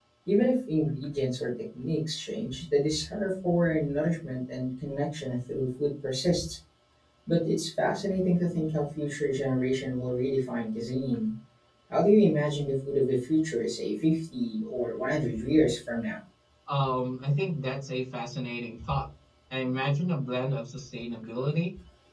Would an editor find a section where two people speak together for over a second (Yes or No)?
No